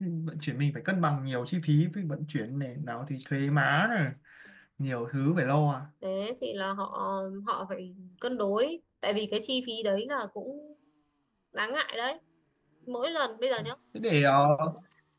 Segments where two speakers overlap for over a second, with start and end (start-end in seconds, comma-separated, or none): none